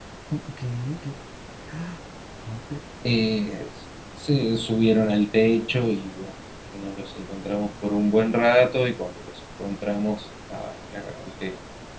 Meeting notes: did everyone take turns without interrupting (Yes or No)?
Yes